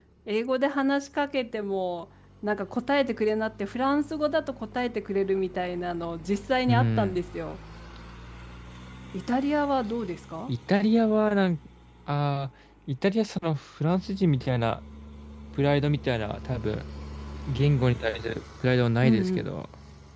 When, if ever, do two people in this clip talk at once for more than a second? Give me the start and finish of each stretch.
none

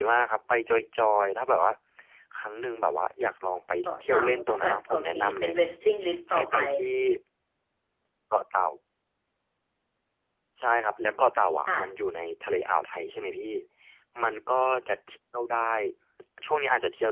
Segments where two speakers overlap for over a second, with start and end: 3.8-5.5

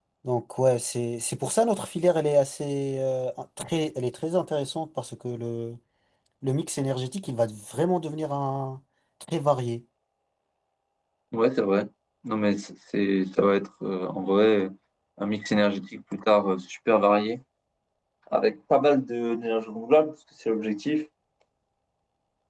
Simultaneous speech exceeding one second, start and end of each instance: none

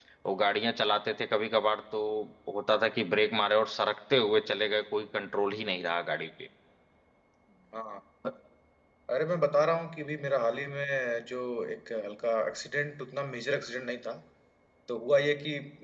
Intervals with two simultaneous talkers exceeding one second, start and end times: none

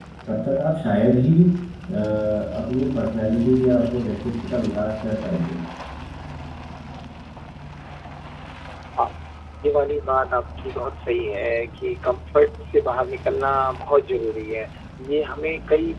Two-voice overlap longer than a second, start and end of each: none

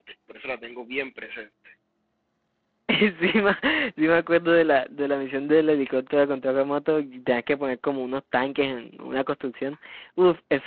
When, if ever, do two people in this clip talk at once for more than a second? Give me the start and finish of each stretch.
none

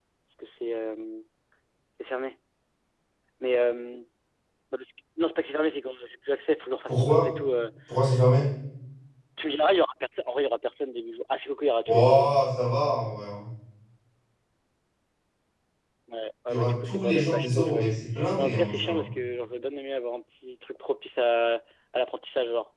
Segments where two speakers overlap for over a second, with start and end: 16.5-19.1

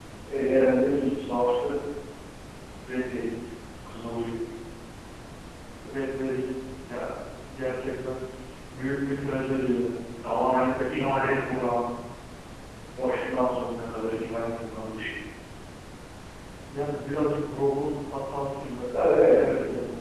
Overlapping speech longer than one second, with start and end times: 10.6-11.8

